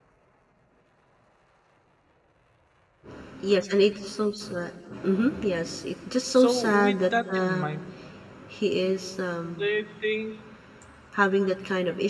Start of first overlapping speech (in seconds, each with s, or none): 6.4 s